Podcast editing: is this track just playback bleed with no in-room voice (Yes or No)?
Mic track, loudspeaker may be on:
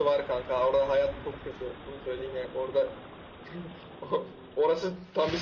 Yes